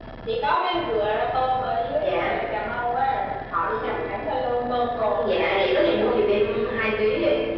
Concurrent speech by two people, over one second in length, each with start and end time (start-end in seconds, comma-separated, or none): 5.0-6.2